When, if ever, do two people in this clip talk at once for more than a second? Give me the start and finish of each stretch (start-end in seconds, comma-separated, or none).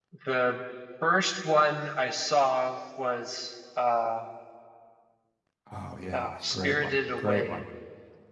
6.1-7.6